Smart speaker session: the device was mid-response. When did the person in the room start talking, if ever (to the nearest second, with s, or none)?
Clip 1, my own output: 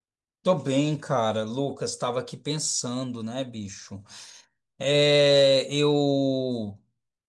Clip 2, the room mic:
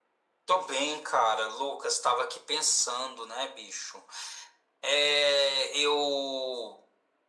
none